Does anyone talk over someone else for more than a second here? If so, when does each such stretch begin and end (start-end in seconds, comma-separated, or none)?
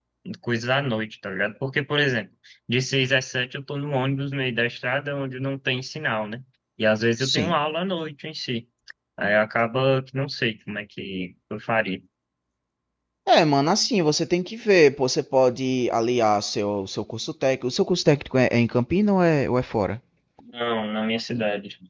none